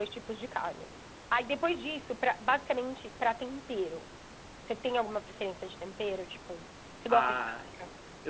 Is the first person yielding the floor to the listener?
Yes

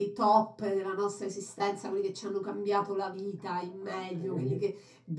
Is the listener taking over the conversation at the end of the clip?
No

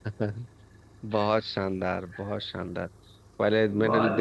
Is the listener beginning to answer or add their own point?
No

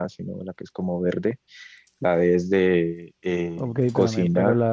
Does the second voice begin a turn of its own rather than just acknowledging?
Yes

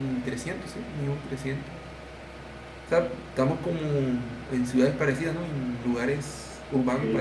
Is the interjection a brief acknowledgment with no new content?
No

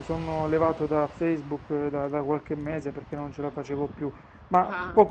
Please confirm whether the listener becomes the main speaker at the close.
No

